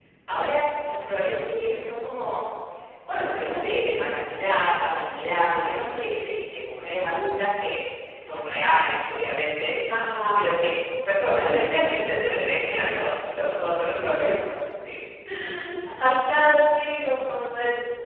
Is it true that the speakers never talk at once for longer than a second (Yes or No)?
Yes